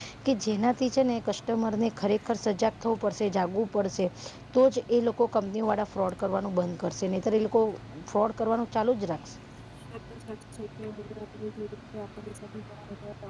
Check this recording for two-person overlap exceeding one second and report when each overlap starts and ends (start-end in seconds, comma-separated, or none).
none